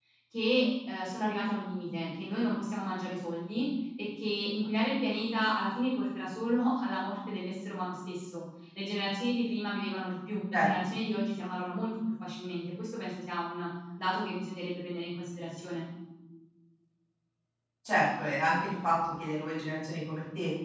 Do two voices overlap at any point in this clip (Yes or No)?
No